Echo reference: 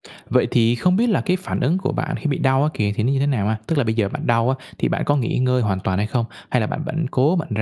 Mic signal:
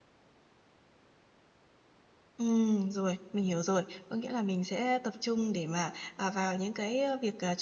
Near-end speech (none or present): present